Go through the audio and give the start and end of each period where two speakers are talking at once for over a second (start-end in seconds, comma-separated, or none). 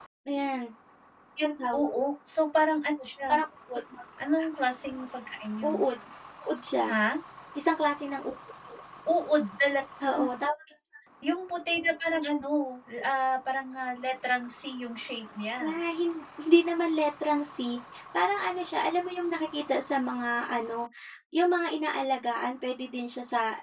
none